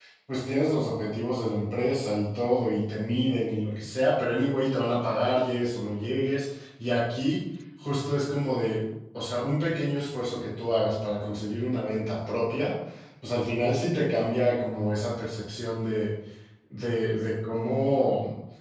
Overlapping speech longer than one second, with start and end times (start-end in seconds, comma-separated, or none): none